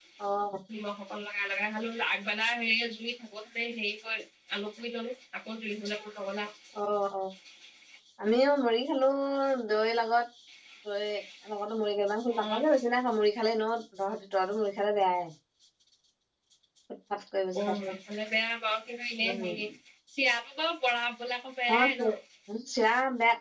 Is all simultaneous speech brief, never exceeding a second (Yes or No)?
Yes